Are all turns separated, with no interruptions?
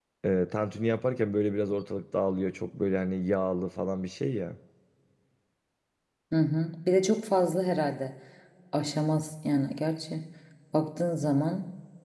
Yes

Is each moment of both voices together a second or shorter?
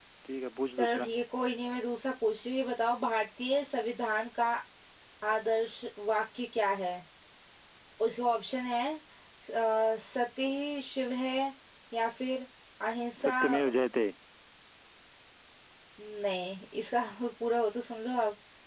Yes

